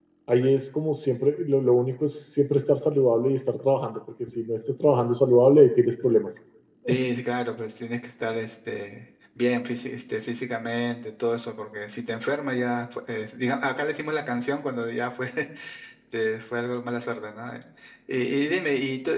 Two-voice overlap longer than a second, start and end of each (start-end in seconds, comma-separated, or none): none